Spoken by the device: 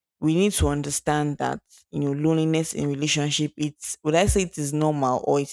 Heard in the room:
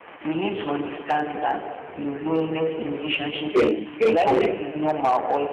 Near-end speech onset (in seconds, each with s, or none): 3.5 s